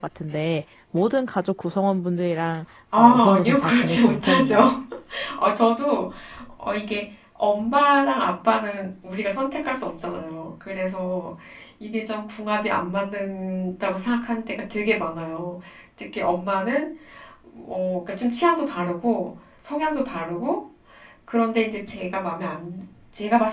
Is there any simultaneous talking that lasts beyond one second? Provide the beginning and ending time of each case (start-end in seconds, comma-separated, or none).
3.0-4.6